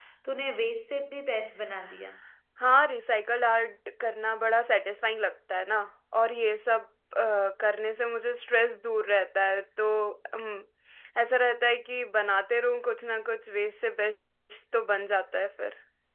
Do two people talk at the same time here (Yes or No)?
No